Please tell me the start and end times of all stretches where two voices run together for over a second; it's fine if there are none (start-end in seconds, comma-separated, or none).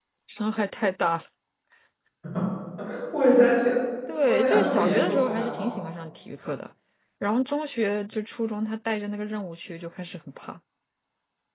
4.3-5.8